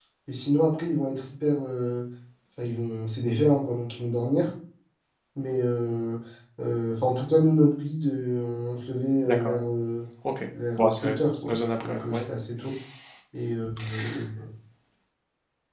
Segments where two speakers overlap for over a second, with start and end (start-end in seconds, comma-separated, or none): 10.8-12.2